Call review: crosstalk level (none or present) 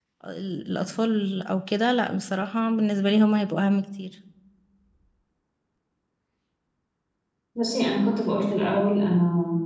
none